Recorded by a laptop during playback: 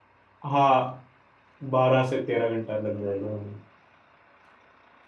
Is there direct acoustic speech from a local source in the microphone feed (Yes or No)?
Yes